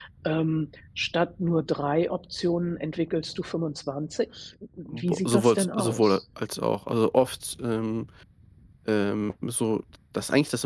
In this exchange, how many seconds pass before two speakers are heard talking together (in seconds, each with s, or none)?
4.9 s